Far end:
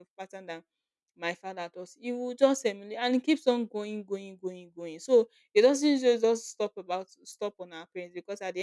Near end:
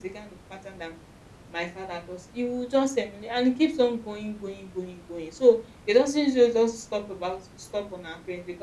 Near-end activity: none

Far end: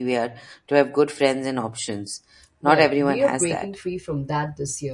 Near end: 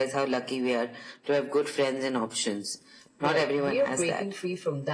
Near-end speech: none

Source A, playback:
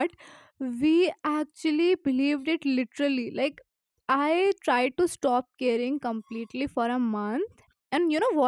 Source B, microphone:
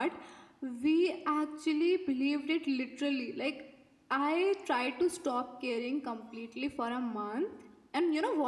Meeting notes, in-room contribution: none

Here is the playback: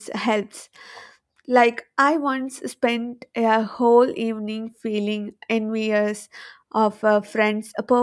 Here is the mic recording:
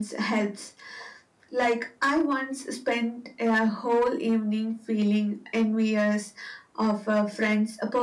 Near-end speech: none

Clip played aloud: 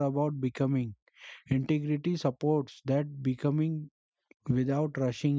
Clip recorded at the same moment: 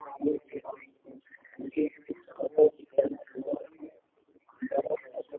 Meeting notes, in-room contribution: none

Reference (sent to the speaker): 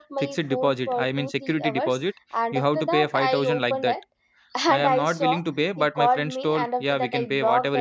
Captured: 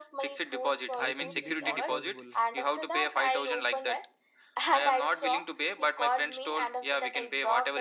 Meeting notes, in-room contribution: present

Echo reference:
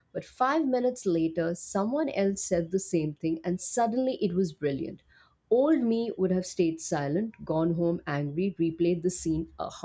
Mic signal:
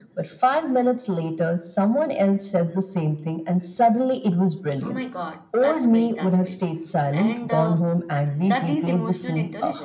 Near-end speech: present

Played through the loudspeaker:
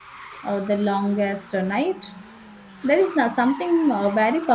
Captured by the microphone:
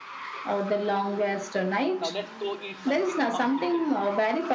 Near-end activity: present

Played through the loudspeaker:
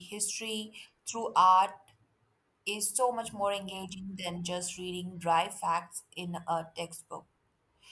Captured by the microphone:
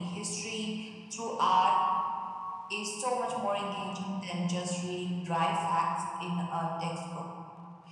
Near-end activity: none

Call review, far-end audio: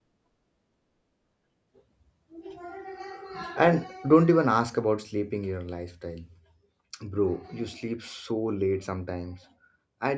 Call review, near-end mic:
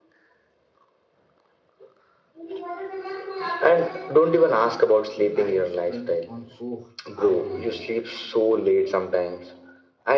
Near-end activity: present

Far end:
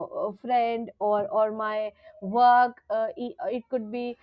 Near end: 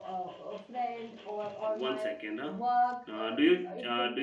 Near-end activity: present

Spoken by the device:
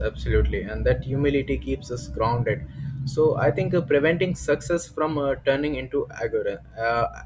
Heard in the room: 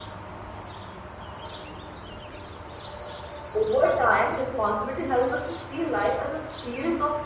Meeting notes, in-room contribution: present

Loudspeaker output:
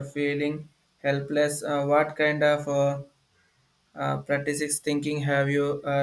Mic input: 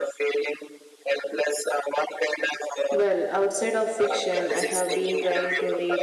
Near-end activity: present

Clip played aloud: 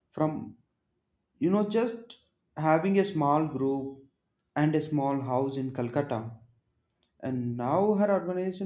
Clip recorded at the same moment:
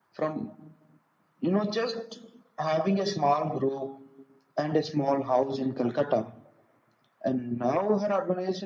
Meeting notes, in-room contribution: none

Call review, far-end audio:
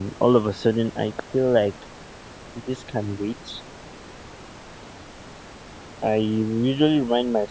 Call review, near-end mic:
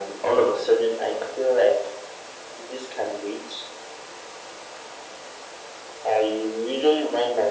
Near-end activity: none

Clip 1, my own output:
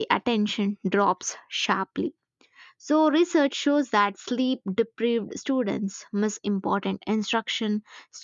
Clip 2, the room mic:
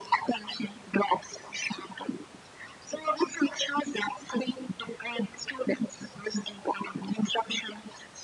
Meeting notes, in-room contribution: none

